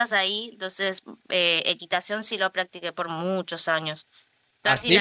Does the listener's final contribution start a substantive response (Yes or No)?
Yes